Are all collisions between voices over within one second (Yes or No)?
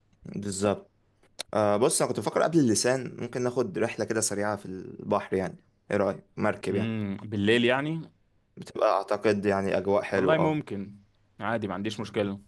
Yes